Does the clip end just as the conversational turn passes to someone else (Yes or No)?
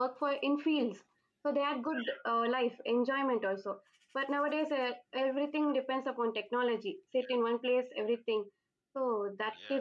Yes